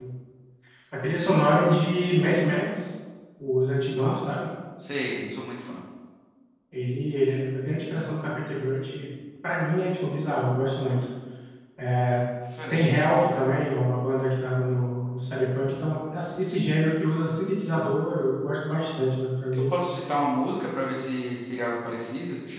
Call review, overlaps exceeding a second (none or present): none